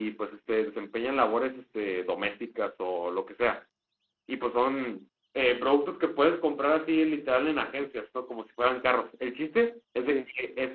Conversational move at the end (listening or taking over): listening